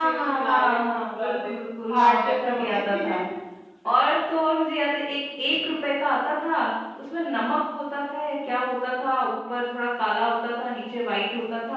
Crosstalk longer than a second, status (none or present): present